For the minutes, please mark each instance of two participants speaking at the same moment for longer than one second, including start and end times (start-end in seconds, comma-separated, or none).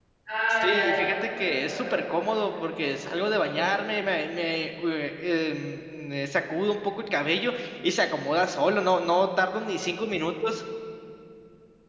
0.5-3.7